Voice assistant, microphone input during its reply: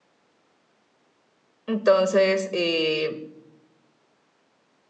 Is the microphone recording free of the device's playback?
Yes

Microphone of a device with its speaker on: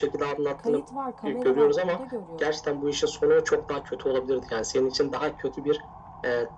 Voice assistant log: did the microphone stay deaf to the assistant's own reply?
No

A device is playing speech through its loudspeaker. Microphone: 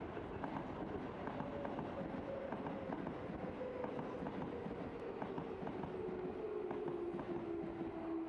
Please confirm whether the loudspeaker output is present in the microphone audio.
No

